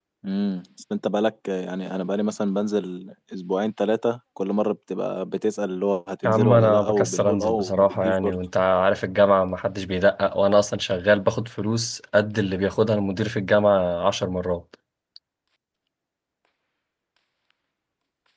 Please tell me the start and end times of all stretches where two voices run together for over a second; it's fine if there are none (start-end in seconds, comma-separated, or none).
6.2-8.4